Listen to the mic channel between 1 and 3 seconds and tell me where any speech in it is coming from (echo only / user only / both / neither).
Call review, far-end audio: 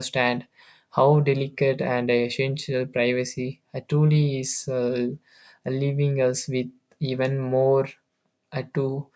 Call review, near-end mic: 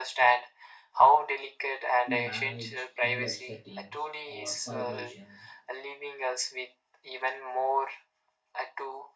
both